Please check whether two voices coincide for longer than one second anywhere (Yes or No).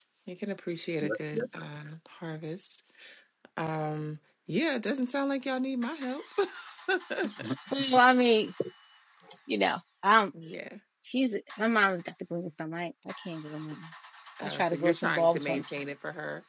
Yes